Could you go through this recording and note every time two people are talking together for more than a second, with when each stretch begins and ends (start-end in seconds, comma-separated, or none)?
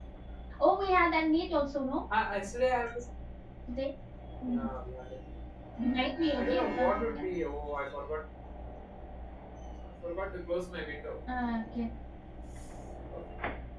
5.8-7.2